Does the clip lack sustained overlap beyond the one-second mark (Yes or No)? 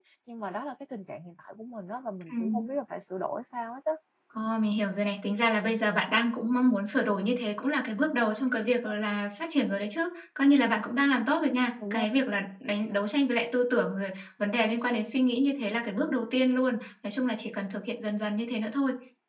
Yes